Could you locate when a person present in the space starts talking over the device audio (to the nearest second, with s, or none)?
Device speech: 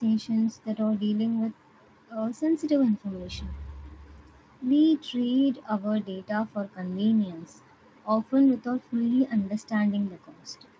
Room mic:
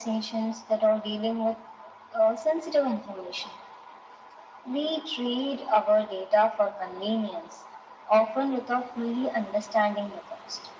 none